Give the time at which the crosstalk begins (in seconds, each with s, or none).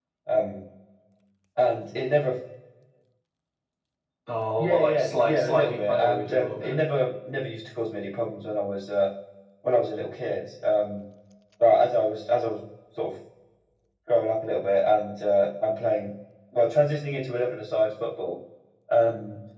4.6 s